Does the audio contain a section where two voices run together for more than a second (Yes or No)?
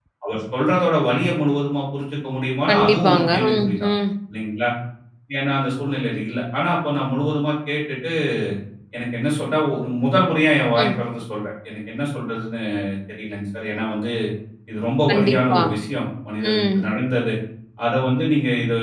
Yes